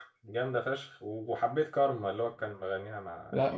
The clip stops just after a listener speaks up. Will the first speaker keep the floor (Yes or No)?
No